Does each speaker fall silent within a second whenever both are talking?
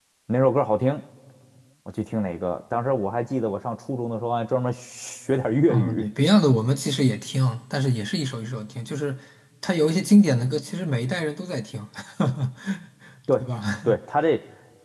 Yes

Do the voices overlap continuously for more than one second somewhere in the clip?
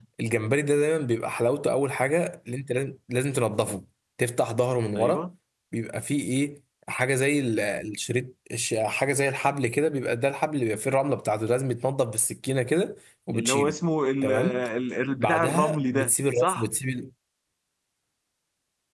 Yes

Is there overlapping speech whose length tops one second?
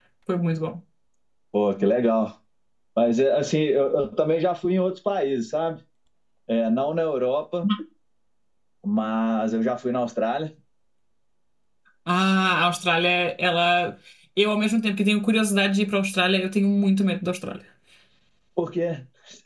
No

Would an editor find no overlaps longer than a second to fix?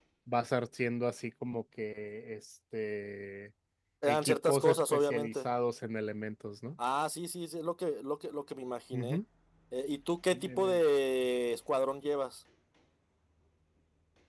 No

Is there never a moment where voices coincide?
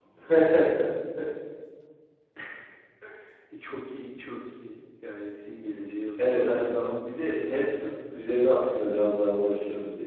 No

